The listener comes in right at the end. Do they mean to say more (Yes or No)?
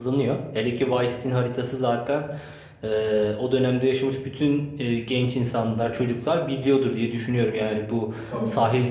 No